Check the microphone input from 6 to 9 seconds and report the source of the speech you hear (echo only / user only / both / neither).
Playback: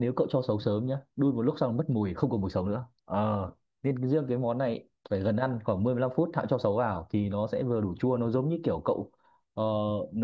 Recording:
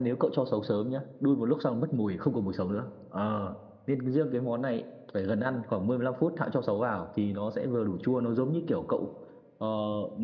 echo only